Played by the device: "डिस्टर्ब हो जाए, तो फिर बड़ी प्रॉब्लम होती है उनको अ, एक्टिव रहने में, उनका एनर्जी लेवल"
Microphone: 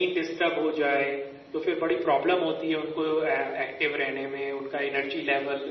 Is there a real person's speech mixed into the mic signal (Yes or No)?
No